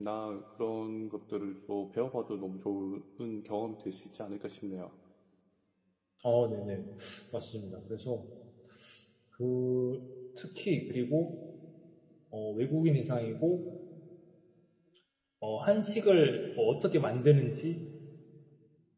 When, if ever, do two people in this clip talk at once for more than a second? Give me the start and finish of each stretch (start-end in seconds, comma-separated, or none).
none